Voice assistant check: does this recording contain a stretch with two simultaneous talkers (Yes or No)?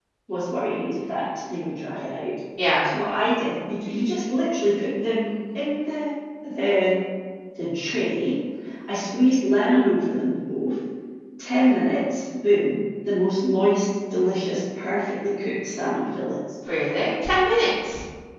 No